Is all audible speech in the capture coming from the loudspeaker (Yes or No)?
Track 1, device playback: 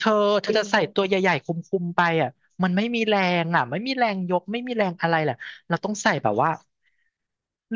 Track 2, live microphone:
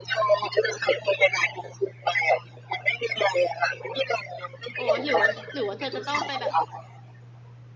No